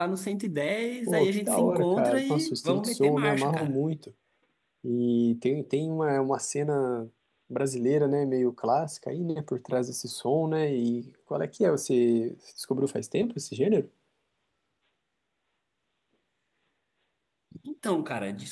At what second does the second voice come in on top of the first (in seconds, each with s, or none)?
1.1 s